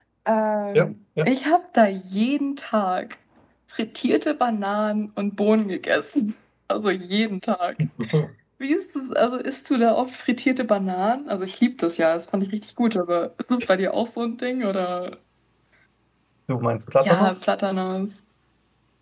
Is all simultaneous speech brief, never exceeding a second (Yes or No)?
Yes